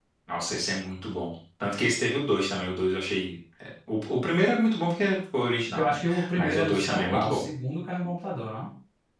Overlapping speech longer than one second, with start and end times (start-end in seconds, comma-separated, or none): 5.8-7.4